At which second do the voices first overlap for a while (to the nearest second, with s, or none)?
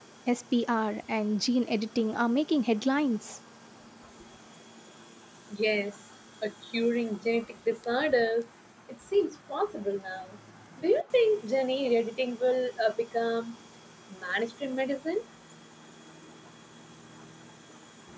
none